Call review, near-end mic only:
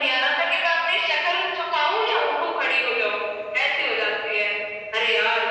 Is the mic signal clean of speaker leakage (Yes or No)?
No